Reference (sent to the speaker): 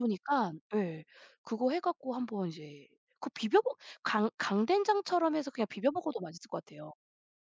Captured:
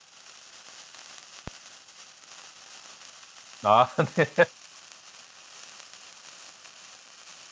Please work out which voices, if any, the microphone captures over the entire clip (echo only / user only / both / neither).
user only